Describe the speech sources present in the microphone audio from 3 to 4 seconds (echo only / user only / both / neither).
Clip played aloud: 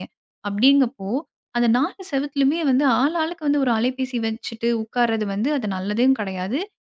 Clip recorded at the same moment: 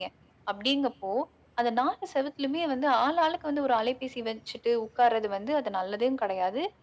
echo only